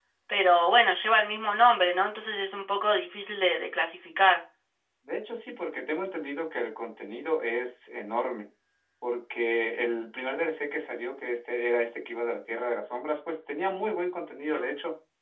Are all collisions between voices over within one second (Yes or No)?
Yes